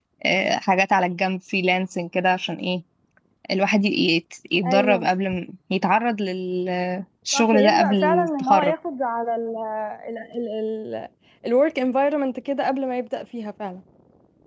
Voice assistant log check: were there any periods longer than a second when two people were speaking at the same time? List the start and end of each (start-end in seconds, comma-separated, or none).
7.3-8.7